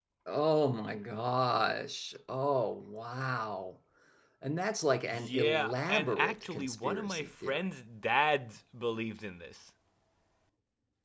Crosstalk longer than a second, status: present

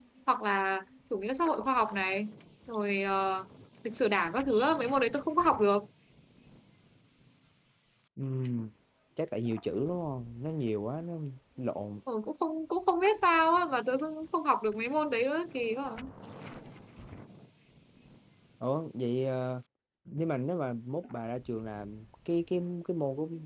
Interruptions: none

